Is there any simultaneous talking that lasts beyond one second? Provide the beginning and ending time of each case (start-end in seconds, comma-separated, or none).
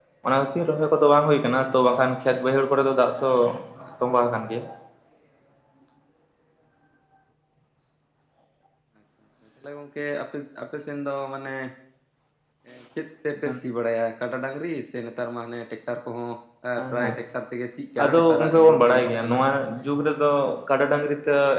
18.0-19.4